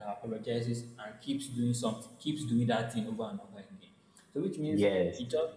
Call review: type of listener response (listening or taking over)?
listening